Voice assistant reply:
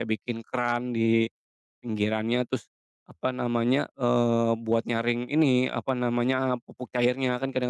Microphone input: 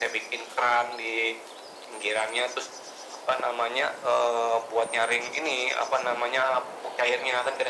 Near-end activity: none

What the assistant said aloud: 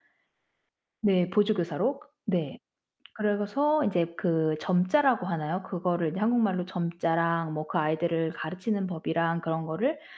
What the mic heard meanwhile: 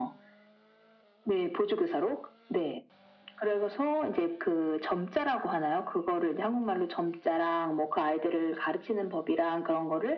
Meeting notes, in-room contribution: none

